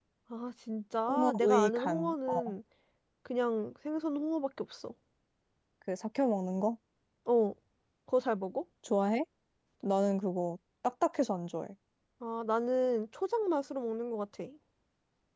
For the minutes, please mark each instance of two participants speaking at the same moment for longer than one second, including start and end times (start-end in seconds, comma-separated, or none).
1.1-2.6